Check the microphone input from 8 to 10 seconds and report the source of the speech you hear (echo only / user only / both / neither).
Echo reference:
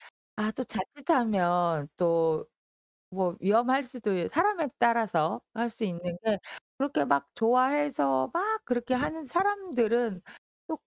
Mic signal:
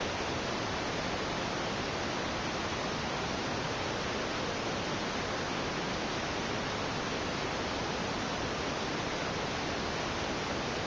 neither